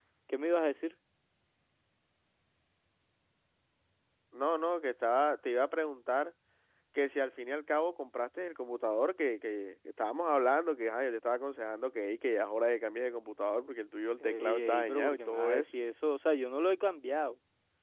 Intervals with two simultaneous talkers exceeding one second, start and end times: 14.2-15.7

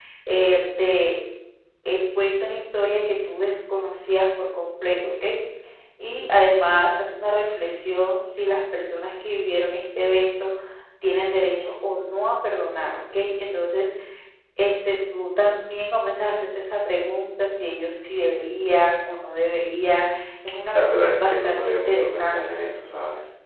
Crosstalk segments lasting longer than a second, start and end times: 20.8-22.6

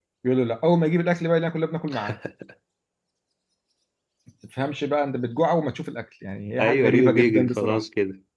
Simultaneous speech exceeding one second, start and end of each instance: 6.6-7.8

